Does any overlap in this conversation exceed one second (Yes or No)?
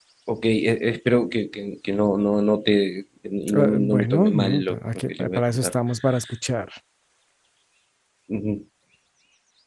Yes